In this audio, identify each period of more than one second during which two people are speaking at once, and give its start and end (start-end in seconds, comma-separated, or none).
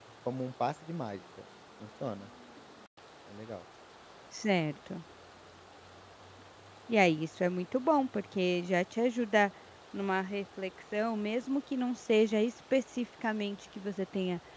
none